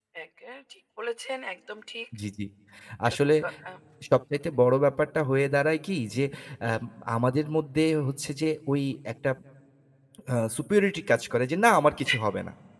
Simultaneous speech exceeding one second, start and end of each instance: none

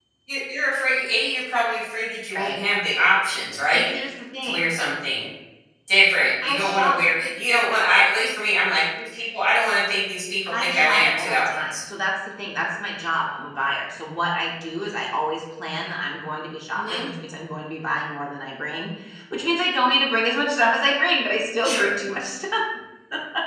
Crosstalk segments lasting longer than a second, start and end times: 10.4-11.7

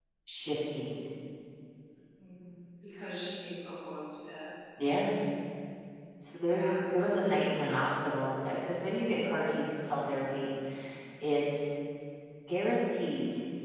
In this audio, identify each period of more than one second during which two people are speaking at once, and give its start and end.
none

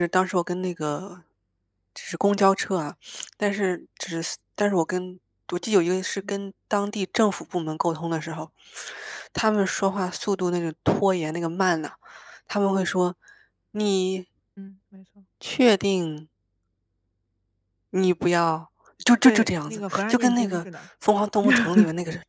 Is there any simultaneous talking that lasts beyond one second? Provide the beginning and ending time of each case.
19.2-20.6

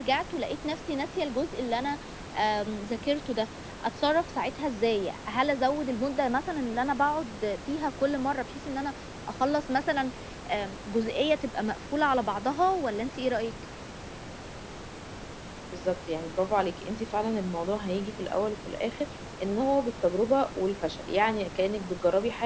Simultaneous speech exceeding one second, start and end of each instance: none

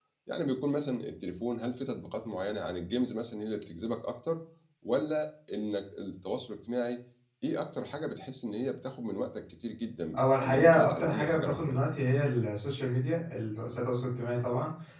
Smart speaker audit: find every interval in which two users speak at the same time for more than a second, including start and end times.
10.2-11.8

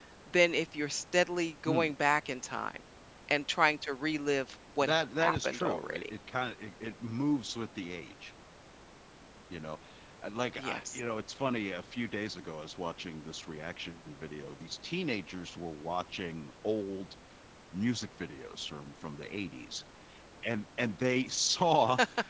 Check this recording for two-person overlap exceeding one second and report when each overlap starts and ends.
4.8-6.0

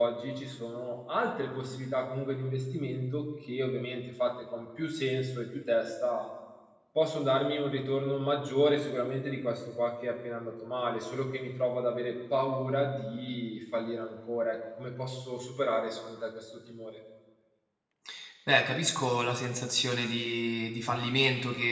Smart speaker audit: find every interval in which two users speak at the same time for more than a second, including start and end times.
none

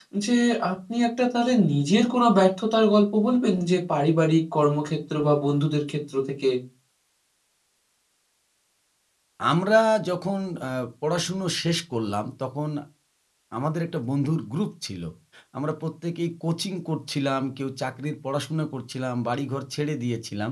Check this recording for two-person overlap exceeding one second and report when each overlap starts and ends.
none

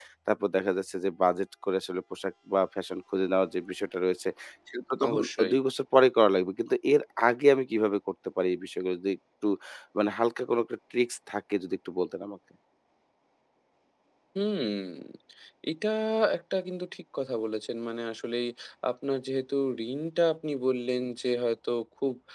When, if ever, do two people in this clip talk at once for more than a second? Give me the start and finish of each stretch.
none

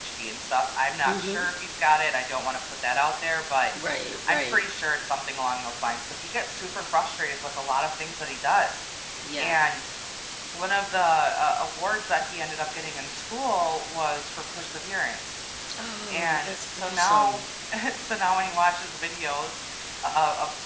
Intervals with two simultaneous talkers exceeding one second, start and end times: 16.1-17.4

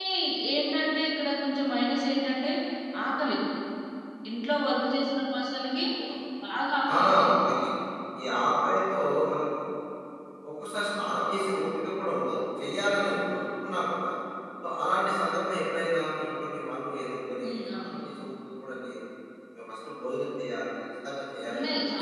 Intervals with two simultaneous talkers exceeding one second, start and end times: none

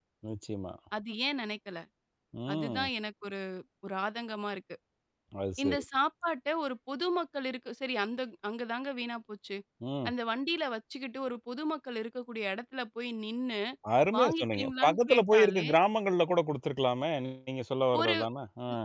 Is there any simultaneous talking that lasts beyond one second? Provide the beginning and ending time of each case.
14.2-15.7

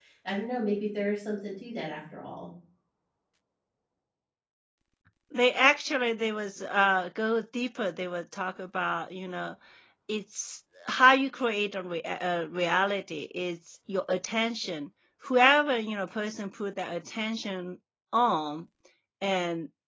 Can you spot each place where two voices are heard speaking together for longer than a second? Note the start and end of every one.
none

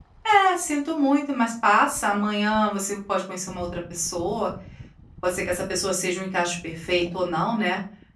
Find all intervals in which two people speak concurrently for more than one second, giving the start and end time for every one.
none

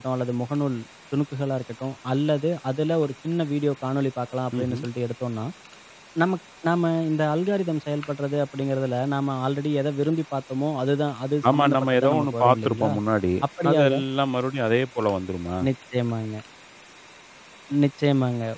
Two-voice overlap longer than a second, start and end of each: 11.5-12.9

